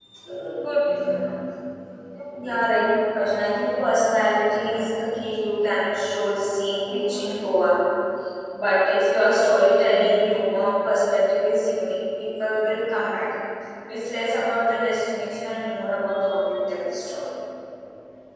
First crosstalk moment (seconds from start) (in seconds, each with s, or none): none